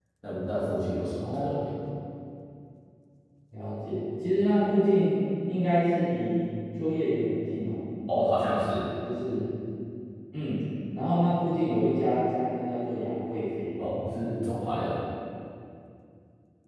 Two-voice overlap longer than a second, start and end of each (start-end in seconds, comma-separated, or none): none